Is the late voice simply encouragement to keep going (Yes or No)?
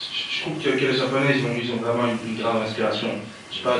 Yes